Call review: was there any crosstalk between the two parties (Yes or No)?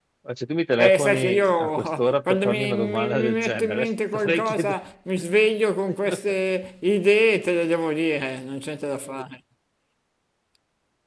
Yes